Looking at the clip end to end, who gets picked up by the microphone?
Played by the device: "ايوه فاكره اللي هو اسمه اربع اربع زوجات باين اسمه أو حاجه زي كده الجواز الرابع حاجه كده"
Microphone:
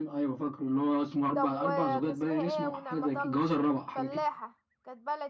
both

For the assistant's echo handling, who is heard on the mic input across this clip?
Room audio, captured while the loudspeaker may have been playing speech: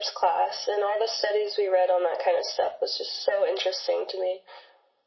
echo only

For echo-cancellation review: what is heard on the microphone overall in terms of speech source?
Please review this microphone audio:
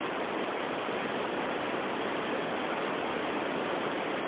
neither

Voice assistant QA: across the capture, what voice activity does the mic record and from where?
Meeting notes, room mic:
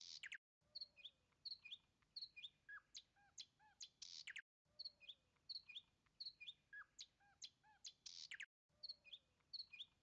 neither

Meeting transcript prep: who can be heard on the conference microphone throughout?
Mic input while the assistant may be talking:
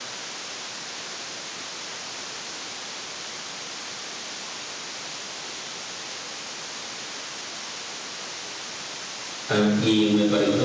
user only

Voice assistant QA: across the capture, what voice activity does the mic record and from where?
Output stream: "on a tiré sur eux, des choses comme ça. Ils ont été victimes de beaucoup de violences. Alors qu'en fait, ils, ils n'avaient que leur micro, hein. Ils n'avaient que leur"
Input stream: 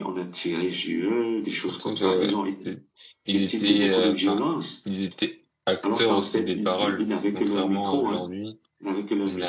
both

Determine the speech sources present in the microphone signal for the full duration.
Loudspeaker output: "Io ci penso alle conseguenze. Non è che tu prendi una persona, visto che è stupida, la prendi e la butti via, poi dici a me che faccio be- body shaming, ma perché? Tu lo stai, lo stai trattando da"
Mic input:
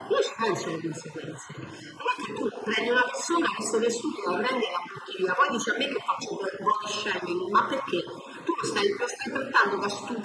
echo only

